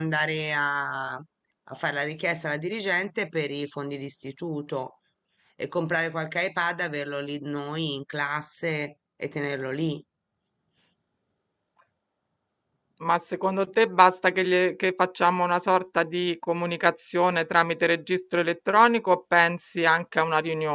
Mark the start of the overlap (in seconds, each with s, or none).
none